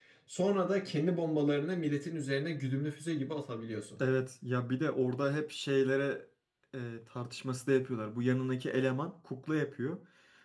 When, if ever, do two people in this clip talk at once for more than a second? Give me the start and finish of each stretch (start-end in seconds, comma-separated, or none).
none